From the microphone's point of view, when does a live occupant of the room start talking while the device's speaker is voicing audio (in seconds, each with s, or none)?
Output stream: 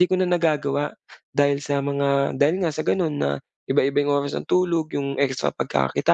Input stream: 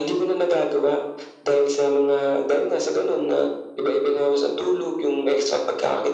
none